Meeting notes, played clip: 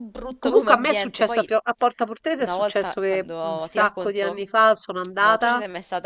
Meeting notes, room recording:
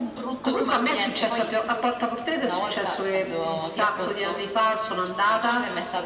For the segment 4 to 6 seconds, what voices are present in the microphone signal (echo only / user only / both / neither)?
echo only